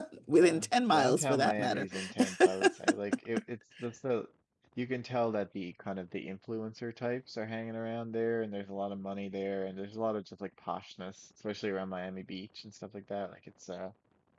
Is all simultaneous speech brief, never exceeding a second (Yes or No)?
No